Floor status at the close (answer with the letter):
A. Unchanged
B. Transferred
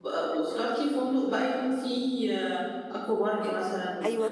B